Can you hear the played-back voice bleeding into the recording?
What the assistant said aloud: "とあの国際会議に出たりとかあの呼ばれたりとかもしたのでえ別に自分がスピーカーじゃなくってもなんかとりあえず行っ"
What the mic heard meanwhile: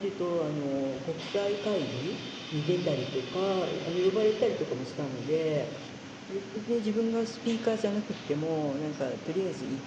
Yes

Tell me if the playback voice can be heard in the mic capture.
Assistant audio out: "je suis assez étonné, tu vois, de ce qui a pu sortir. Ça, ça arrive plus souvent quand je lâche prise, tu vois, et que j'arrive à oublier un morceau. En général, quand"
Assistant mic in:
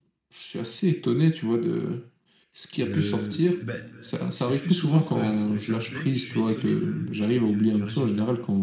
Yes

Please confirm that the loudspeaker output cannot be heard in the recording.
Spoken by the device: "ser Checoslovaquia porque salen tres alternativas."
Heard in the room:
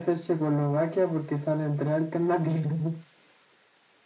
No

